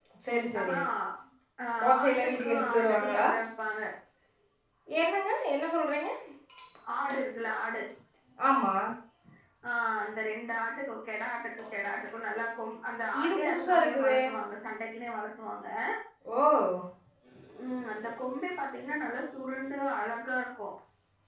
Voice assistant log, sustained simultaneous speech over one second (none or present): present